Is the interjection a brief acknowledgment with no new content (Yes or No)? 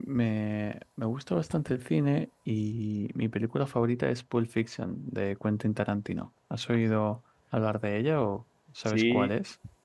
No